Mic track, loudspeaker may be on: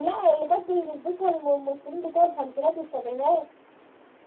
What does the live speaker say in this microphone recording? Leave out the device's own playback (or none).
none